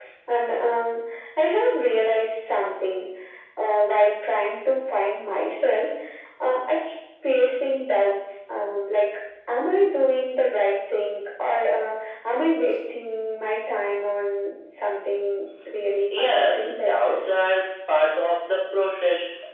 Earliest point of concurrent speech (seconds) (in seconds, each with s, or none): 15.8 s